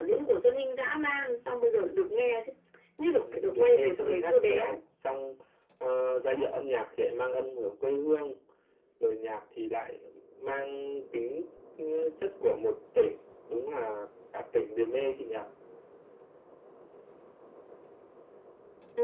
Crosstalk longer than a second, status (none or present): present